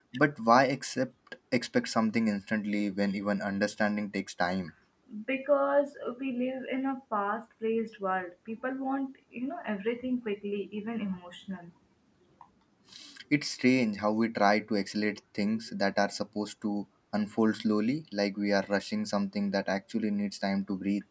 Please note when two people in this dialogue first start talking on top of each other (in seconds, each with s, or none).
none